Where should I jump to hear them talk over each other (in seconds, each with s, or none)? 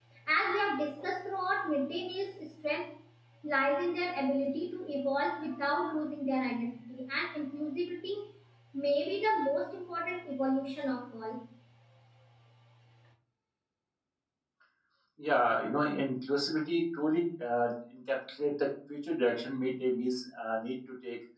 none